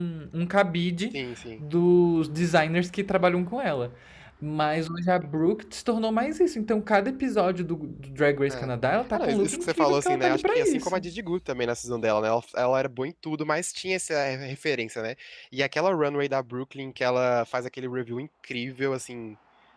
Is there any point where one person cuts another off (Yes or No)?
Yes